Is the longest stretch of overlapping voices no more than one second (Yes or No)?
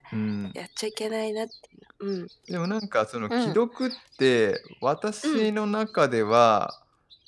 Yes